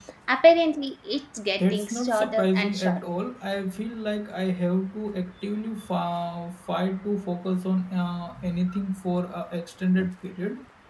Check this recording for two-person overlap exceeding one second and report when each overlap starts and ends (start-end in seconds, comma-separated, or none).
1.6-3.0